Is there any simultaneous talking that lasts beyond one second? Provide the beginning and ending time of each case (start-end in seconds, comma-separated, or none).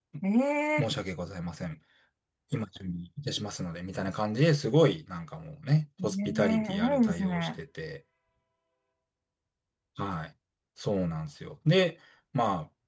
6.0-7.5